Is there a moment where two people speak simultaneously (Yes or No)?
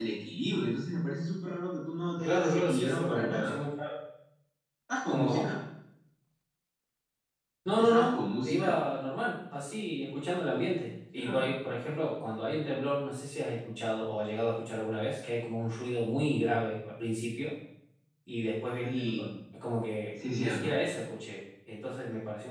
Yes